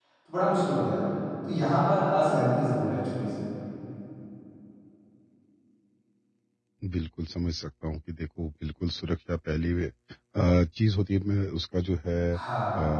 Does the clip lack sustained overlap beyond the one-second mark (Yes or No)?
Yes